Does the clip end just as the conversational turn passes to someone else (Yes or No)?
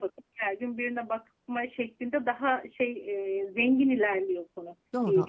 Yes